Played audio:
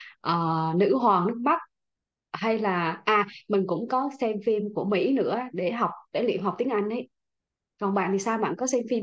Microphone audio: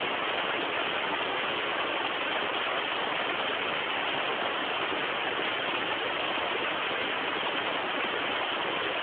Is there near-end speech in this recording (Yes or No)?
No